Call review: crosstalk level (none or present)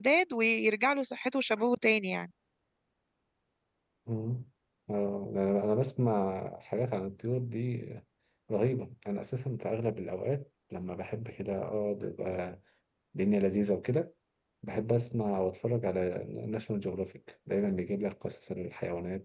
none